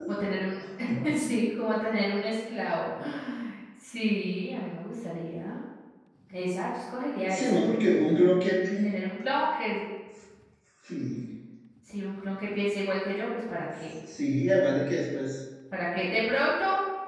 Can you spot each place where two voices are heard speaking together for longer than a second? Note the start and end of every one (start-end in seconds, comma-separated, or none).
none